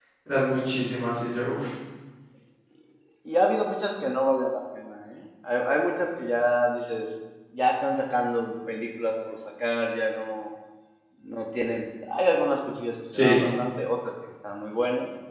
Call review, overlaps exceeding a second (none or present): none